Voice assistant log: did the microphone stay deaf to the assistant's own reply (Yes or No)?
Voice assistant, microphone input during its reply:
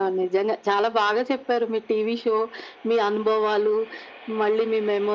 No